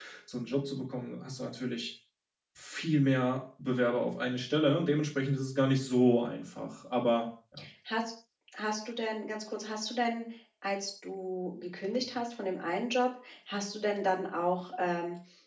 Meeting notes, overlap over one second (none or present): none